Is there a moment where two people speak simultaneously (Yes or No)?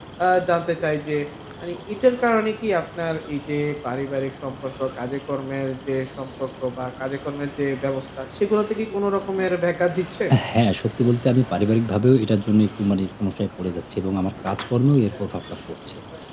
No